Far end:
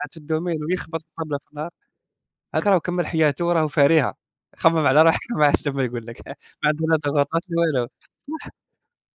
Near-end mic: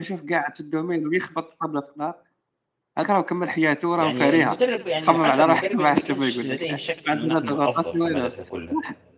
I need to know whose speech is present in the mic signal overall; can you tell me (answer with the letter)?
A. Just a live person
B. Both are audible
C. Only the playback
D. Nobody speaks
B